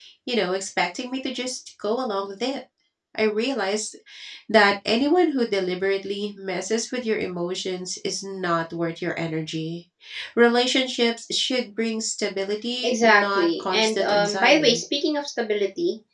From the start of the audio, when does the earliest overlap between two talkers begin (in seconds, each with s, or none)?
12.8 s